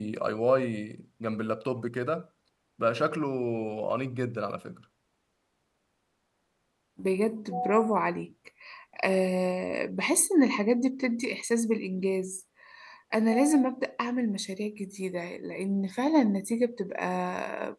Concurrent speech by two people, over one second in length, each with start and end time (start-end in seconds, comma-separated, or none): none